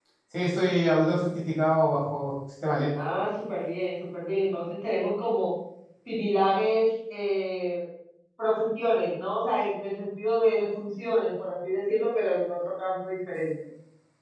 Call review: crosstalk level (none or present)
none